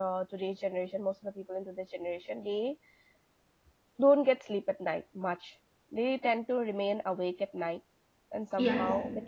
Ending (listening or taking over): taking over